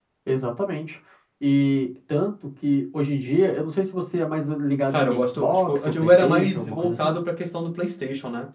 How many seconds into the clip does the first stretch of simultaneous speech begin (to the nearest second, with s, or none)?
5 s